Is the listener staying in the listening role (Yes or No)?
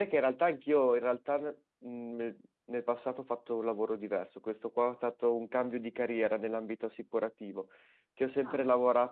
Yes